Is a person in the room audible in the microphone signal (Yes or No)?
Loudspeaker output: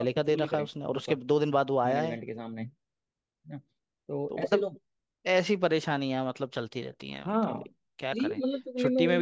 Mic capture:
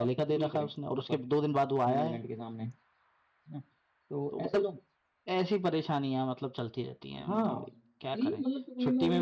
Yes